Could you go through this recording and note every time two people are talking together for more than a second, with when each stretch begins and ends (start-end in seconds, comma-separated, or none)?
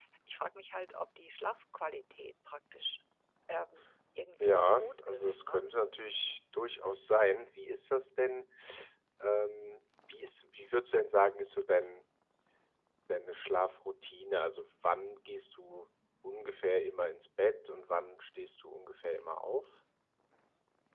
4.4-5.6